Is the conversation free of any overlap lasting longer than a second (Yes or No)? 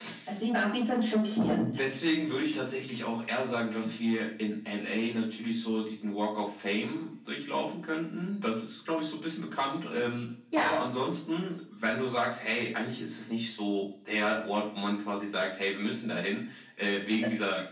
Yes